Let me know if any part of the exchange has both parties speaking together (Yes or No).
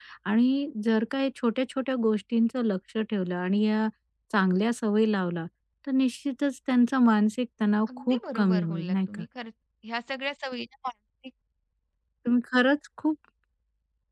Yes